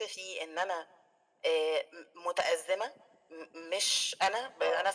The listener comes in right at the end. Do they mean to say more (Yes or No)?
No